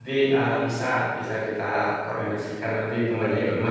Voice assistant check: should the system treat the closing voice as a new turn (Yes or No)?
No